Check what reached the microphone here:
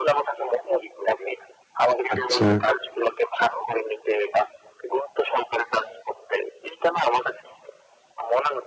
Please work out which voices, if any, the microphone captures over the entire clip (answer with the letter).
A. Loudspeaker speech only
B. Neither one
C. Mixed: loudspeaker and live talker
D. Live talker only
C